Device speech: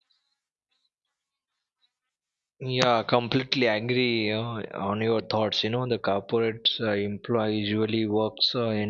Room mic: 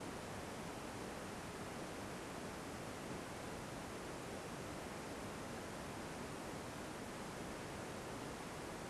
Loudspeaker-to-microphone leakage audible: No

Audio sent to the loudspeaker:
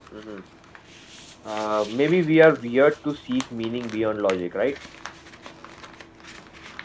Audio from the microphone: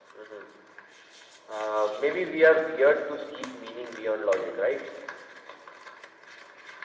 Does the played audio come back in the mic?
Yes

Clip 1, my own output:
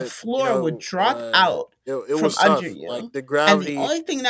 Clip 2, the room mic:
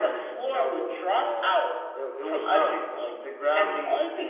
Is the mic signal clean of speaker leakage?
No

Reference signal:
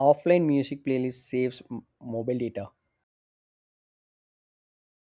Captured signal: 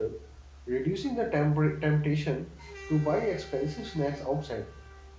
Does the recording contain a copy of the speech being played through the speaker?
No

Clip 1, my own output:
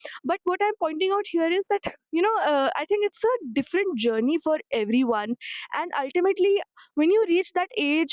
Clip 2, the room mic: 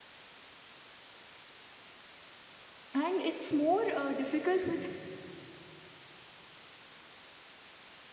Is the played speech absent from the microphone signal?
Yes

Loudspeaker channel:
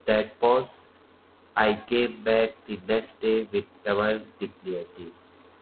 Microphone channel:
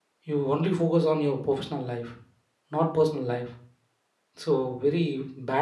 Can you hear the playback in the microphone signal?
No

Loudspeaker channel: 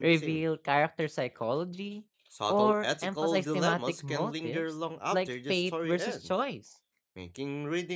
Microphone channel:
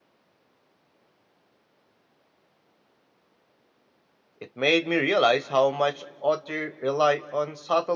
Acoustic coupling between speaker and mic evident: No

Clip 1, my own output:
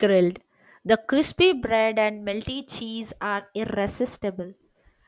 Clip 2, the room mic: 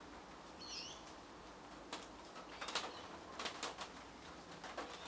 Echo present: No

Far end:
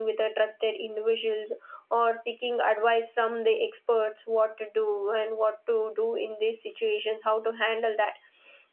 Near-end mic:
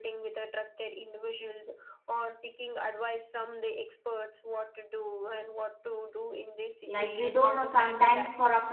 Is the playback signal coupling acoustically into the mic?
Yes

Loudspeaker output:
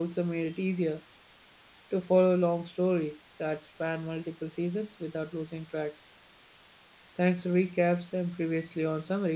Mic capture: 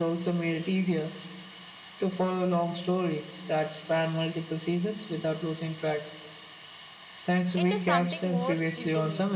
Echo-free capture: No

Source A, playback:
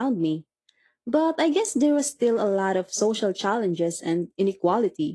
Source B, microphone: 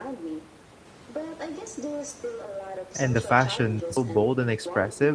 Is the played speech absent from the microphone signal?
No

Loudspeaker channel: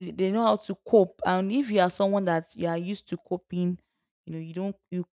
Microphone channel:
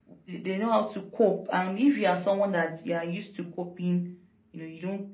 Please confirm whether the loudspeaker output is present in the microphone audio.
Yes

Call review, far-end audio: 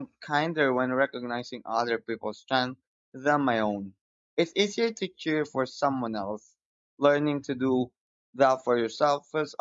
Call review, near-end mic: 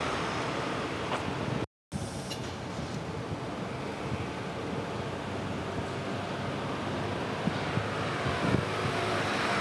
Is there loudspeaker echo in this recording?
No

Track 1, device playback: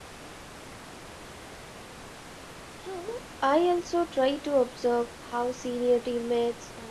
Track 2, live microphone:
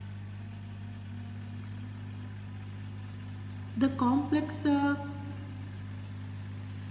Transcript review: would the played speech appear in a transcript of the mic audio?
No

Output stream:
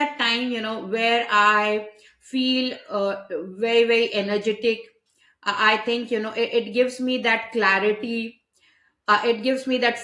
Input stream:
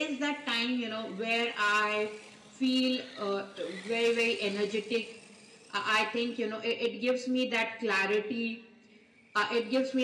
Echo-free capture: No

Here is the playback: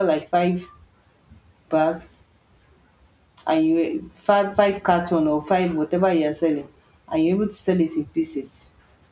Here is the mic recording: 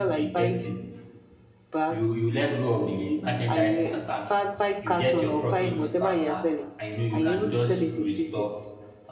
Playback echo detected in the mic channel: Yes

